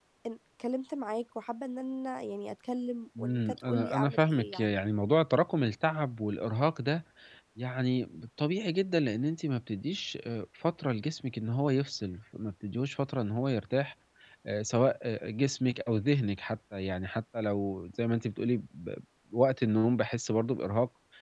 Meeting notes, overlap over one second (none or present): present